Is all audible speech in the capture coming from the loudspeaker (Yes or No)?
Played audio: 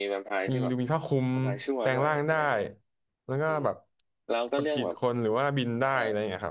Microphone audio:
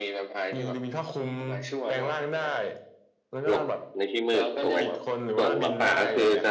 No